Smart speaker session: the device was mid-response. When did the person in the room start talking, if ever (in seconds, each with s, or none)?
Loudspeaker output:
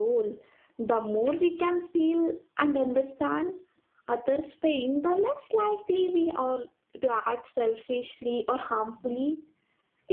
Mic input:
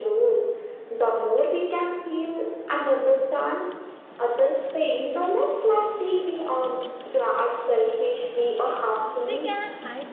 9.2 s